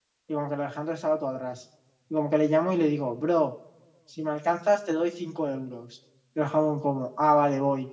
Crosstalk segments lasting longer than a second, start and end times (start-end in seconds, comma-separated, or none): none